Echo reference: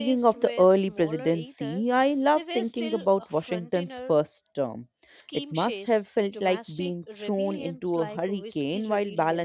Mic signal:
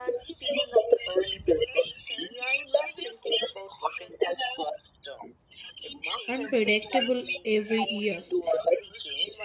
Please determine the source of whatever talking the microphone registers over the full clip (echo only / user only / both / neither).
both